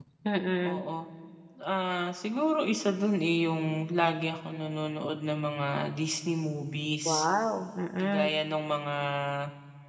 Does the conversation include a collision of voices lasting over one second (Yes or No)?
No